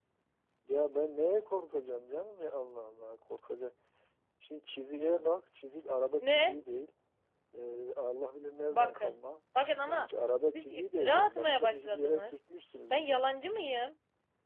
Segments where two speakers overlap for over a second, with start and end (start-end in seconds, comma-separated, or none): 10.5-12.3